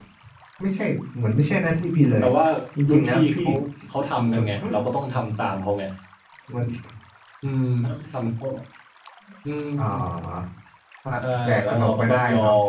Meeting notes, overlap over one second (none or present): present